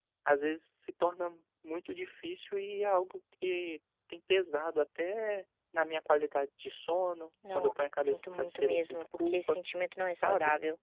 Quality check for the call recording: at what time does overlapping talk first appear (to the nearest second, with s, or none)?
8 s